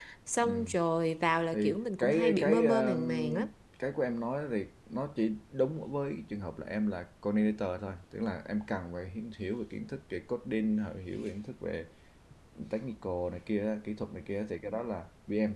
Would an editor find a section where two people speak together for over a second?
Yes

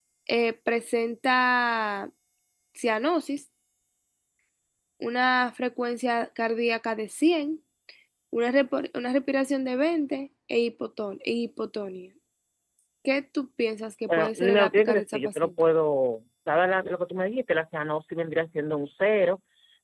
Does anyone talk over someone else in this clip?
Yes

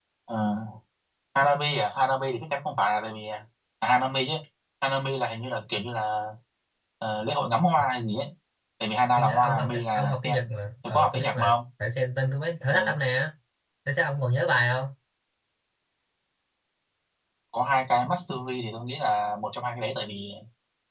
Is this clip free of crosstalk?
No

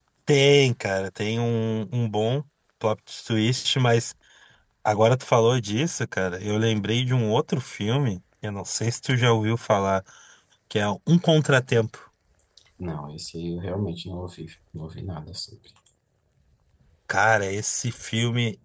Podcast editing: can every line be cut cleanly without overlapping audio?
Yes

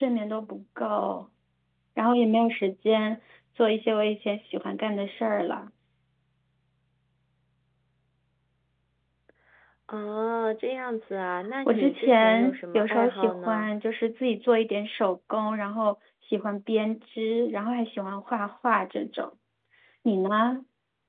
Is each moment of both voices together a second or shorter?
No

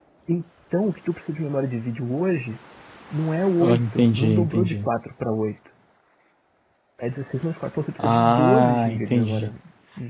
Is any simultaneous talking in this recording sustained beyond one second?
Yes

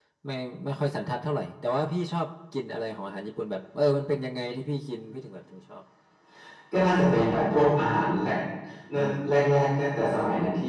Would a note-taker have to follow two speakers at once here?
No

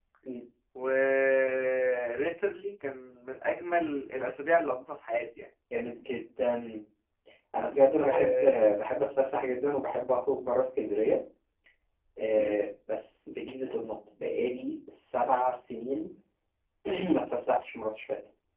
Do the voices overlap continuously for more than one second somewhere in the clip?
No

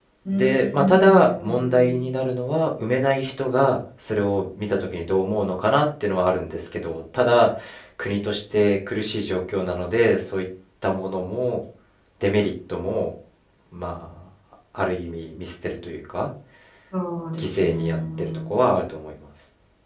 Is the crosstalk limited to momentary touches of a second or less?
No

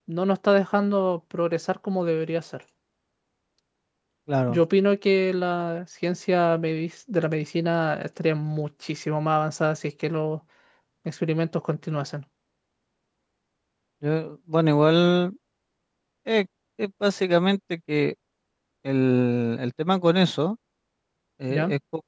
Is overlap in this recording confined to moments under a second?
Yes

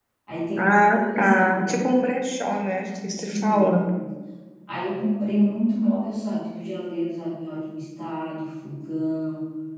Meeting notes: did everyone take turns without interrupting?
No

